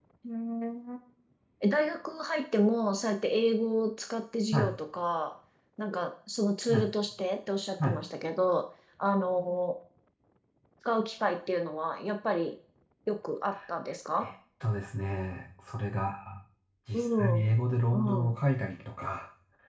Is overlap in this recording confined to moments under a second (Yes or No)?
Yes